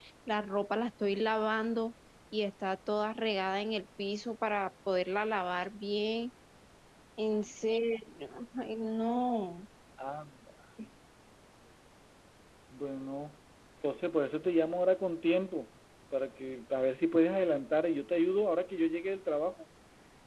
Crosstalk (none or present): none